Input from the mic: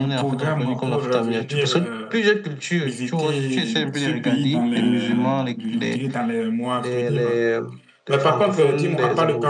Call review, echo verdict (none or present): present